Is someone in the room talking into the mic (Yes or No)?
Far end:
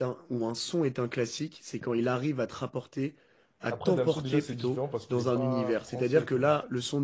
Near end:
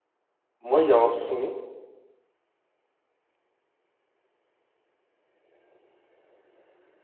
Yes